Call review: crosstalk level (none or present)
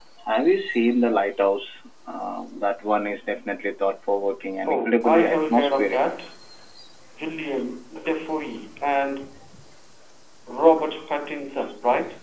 present